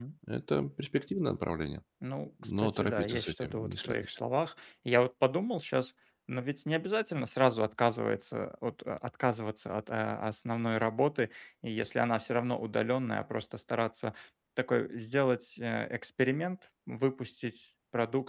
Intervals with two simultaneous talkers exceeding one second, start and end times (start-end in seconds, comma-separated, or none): 2.6-4.1